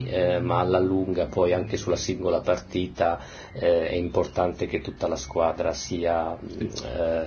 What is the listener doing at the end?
listening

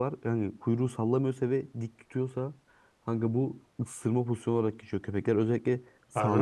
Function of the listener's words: listening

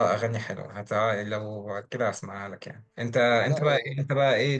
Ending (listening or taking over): listening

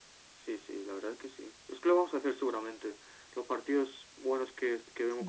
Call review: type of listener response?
listening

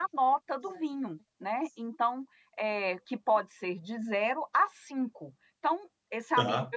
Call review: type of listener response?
listening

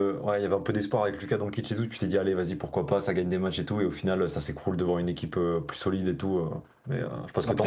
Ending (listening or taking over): taking over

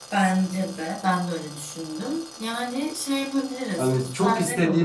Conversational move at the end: taking over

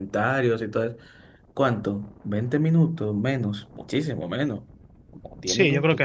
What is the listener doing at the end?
taking over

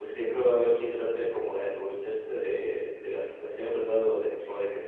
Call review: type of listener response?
listening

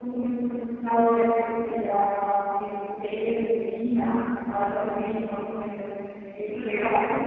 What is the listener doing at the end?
listening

